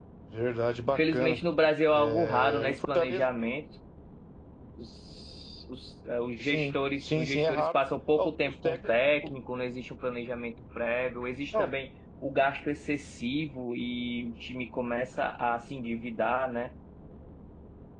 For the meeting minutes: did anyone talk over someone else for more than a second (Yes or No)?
Yes